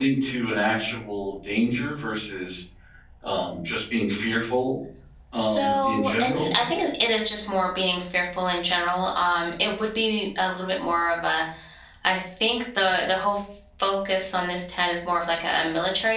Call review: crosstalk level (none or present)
present